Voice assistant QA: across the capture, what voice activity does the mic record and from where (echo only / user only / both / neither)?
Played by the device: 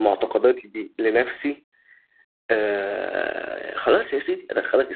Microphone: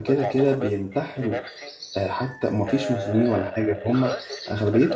both